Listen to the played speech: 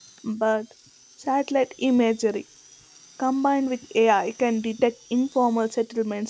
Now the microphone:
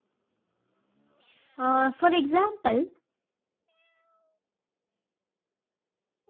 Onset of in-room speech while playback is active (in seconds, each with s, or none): 1.6 s